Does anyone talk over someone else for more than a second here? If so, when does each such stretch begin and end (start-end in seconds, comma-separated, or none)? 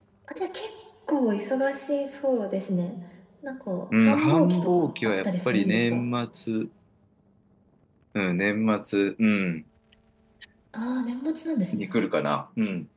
4.0-6.0